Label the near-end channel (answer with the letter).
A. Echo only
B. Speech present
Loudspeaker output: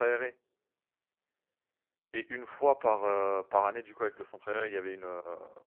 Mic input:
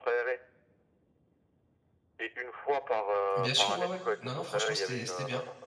B